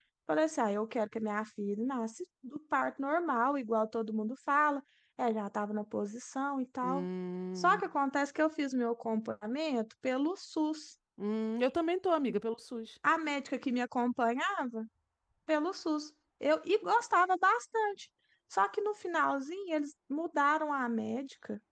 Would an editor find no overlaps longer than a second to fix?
Yes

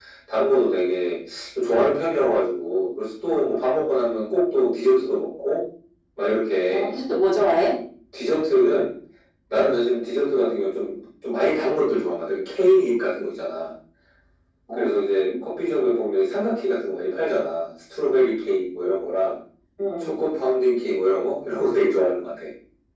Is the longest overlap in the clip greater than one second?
No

